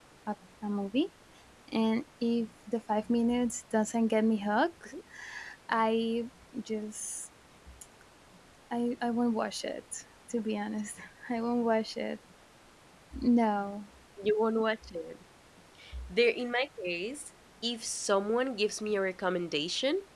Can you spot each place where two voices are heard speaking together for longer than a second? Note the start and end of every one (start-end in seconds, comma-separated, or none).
none